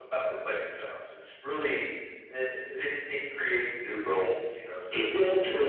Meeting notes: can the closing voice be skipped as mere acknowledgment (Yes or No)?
No